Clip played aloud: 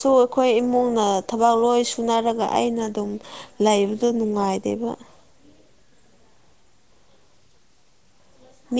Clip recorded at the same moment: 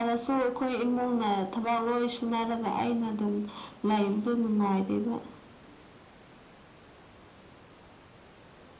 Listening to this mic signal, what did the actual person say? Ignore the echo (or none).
none